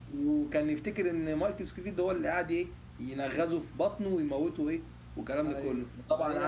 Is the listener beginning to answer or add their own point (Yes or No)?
Yes